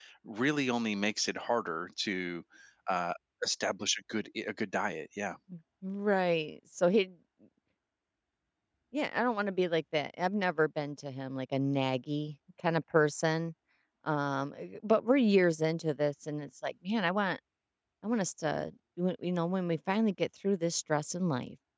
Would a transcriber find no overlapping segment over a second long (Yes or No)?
Yes